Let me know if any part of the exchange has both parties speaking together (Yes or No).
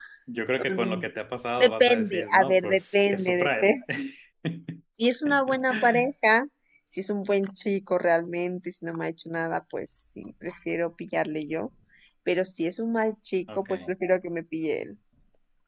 Yes